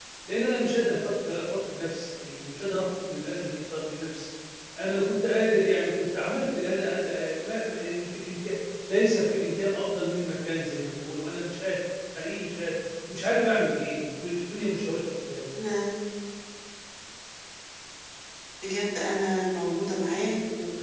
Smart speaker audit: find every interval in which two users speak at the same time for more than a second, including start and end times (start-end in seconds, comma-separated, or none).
none